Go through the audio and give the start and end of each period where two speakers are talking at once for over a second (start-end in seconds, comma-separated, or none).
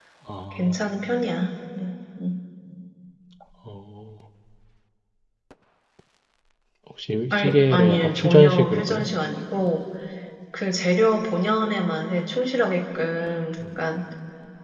7.3-9.1